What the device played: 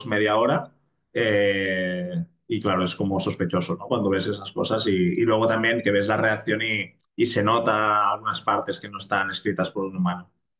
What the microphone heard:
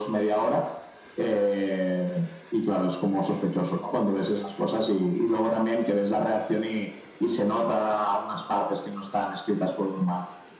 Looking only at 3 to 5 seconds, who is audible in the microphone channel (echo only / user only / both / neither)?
echo only